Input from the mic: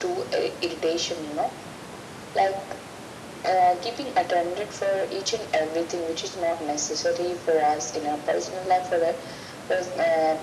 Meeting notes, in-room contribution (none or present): none